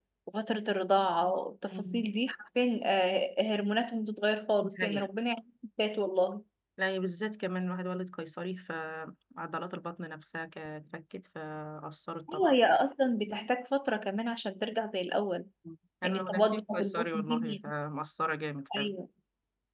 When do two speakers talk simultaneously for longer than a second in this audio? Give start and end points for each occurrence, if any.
16.0-17.7

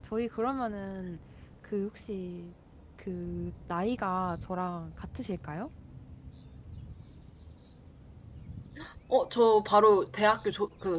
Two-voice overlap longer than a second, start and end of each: none

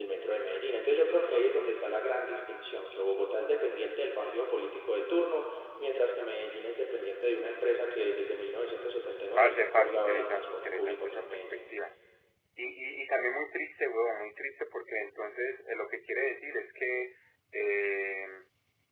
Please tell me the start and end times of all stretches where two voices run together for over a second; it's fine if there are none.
9.4-11.6

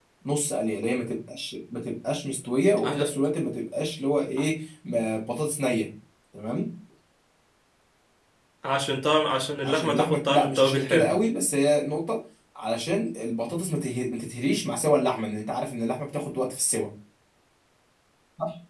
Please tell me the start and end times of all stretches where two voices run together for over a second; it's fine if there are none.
9.6-11.1

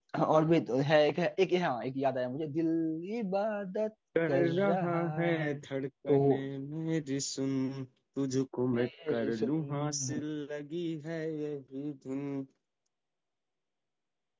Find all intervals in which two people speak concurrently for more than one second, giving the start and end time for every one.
4.3-5.6, 8.7-10.2

